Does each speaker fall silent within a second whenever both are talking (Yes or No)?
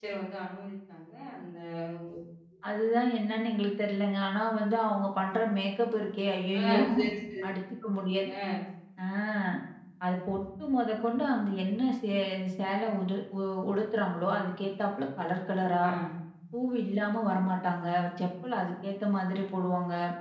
Yes